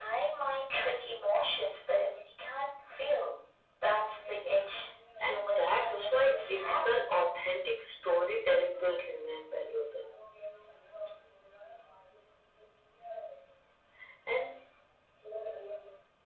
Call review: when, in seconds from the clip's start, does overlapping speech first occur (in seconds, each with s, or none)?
5.2 s